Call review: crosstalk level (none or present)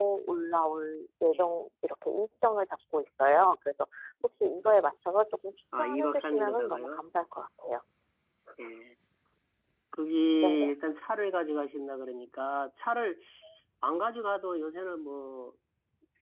present